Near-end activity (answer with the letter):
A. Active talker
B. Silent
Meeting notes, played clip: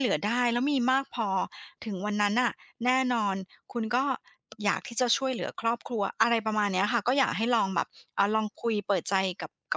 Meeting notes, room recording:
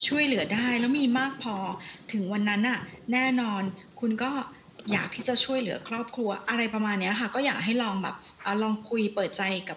B